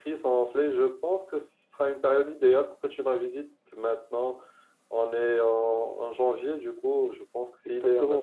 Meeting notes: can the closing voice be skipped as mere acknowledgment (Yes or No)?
No